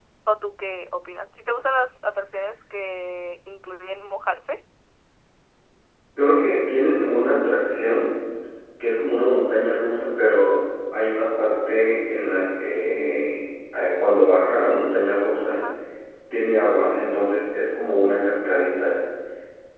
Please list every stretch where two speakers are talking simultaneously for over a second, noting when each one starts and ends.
none

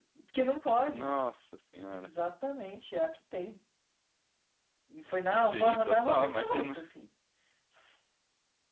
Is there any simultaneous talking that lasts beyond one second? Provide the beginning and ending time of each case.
5.3-6.8

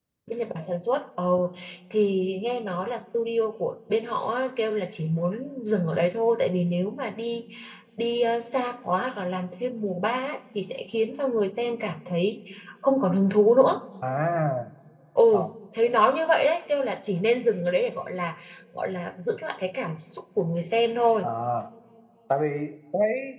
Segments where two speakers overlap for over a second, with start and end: none

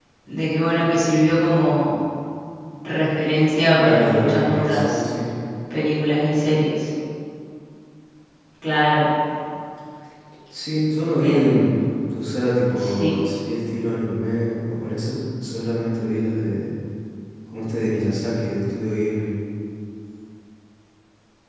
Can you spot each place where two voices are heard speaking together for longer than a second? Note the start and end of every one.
3.7-5.0

